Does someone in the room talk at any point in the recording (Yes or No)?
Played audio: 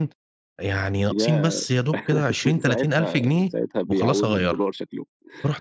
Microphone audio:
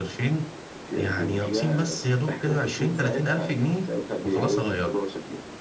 Yes